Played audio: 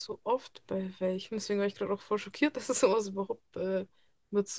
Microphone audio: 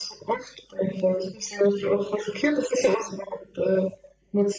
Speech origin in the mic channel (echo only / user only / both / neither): echo only